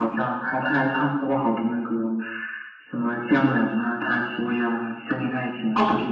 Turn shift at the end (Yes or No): Yes